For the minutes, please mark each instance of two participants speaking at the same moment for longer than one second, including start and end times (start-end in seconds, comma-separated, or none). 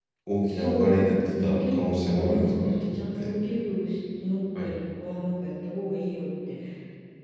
0.5-3.3